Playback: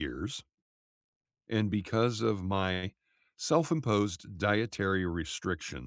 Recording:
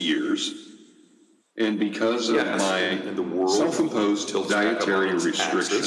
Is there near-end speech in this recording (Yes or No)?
Yes